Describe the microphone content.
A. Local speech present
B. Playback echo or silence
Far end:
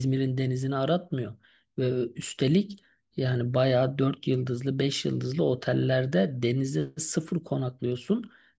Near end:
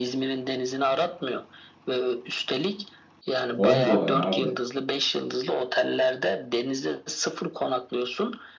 A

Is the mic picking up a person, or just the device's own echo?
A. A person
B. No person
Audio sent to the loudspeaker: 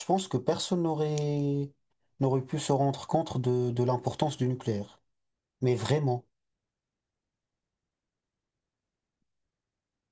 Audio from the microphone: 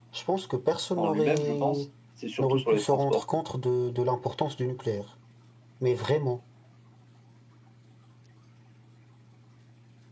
A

